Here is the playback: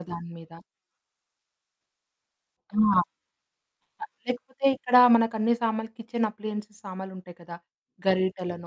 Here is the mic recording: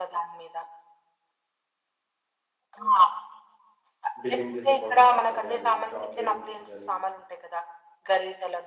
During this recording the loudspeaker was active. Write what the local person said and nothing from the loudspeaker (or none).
బిల్లింగ్ జేసే కౌంటర్ పక్కన గానీ చాక్లెట్స్ గానీ